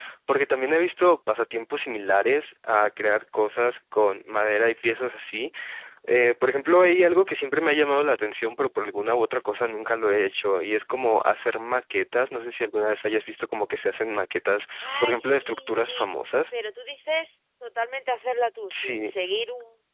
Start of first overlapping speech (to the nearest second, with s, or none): 15 s